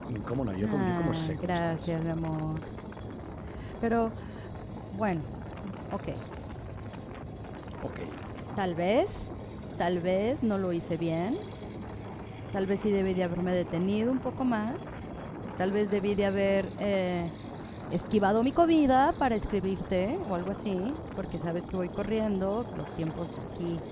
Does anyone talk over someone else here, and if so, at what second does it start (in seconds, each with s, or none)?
0.6 s